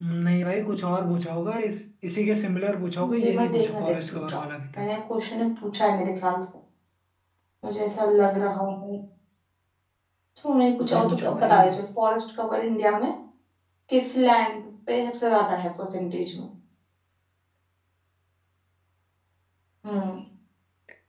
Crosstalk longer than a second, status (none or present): present